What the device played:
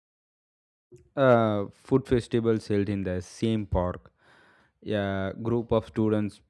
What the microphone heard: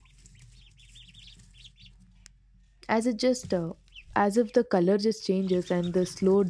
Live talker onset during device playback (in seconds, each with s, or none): 2.9 s